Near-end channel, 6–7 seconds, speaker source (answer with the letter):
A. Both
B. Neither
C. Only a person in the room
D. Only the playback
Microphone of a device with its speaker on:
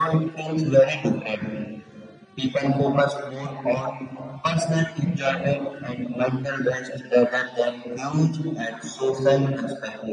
D